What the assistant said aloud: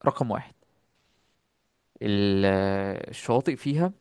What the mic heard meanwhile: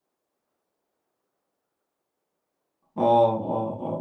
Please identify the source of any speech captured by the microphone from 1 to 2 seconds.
neither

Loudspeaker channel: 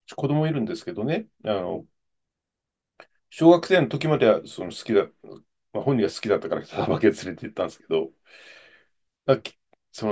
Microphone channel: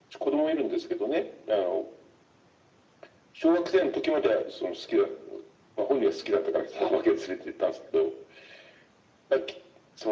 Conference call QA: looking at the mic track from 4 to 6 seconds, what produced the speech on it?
echo only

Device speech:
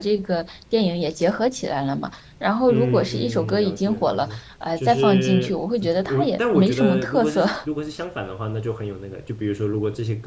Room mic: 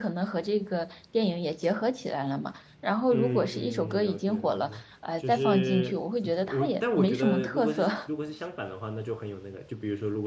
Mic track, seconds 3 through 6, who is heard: echo only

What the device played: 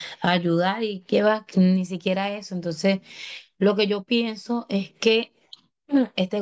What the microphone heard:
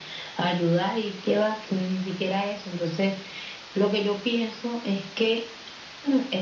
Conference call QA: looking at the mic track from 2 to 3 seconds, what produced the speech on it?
echo only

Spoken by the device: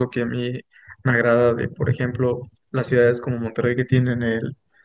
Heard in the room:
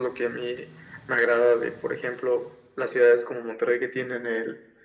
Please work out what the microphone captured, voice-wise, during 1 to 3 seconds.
echo only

